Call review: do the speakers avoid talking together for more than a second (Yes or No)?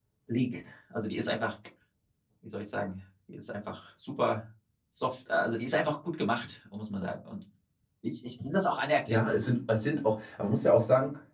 Yes